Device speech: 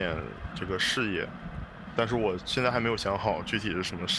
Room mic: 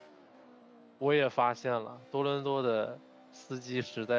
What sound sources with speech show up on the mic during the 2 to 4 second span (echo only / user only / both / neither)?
user only